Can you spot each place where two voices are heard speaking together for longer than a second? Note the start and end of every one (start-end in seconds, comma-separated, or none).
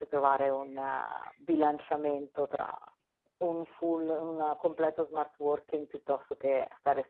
none